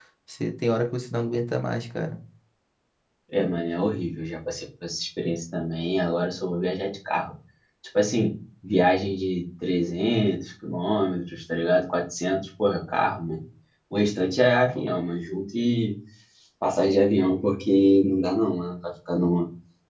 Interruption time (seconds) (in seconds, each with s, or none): none